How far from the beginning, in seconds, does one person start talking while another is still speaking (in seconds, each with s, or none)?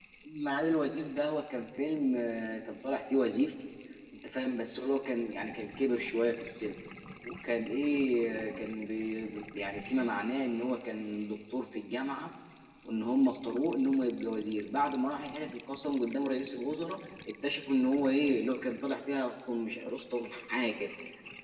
none